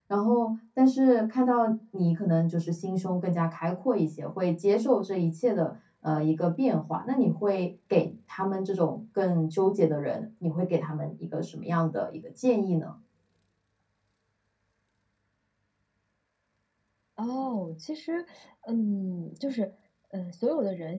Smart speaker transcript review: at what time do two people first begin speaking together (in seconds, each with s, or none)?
none